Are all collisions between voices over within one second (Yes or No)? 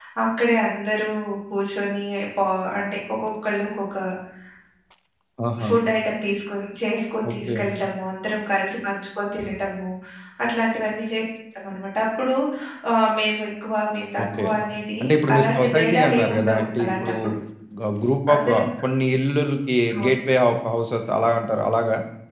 No